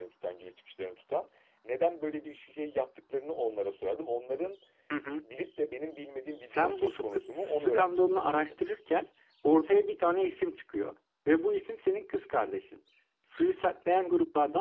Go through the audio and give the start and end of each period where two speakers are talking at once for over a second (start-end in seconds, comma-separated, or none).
6.5-8.5